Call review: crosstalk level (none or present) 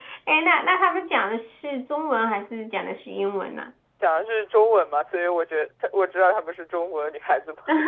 none